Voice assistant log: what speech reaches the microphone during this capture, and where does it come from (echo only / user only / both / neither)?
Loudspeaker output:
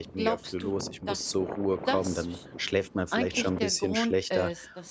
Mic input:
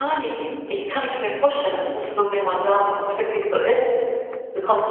user only